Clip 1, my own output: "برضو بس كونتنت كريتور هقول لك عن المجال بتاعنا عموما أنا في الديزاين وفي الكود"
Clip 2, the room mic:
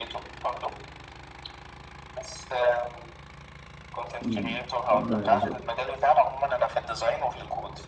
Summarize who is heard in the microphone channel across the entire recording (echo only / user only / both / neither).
both